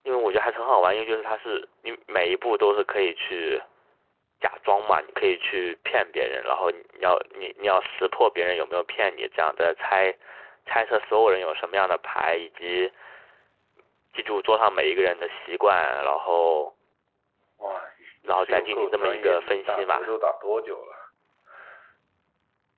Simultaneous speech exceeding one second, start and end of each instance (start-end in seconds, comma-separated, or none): 18.3-20.0